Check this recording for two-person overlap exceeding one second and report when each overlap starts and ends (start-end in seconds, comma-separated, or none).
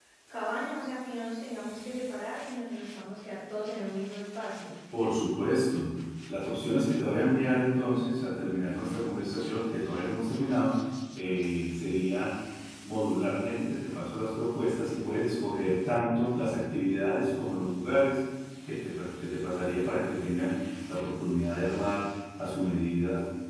none